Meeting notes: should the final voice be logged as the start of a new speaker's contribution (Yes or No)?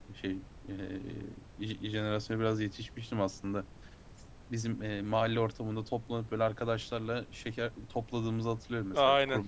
Yes